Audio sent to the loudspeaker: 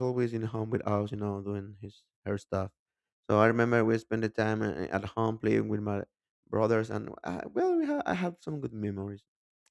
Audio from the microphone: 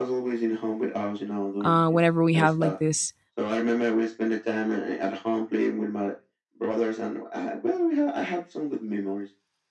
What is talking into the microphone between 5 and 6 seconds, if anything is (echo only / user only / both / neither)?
echo only